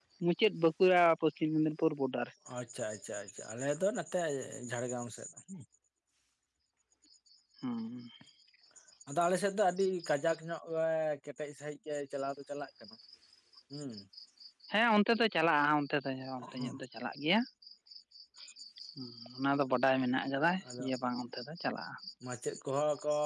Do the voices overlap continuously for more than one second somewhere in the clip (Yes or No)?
No